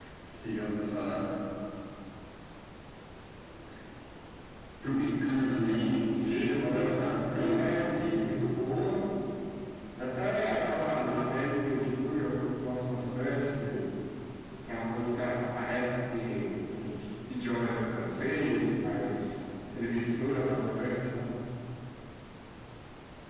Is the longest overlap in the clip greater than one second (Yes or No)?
Yes